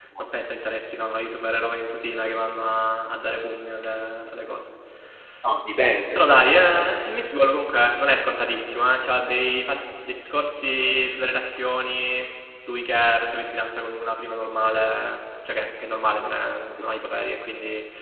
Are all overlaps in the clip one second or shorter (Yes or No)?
Yes